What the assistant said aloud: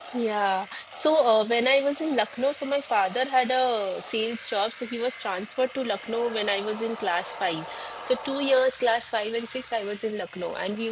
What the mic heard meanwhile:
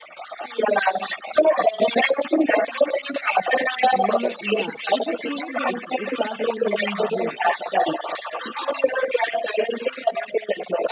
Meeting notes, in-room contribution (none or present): present